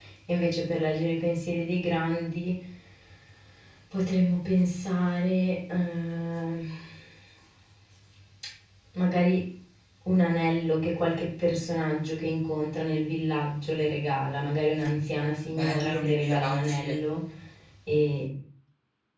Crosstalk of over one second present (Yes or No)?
Yes